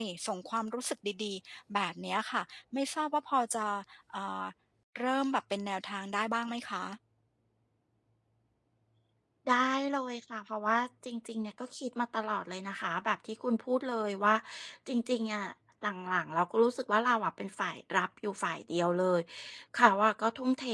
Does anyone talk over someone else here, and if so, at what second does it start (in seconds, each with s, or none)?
none